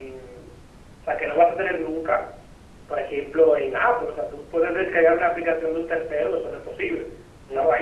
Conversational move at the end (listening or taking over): listening